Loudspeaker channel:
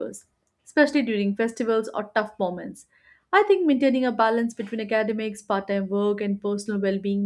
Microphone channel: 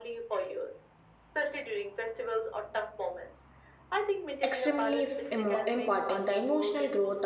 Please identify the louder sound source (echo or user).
user